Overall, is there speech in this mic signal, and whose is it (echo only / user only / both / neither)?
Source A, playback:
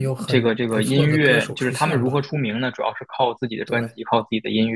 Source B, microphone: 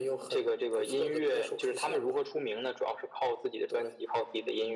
echo only